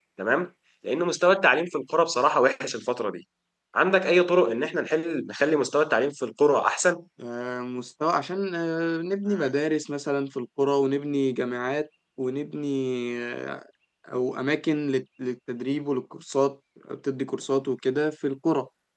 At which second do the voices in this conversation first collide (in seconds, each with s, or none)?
none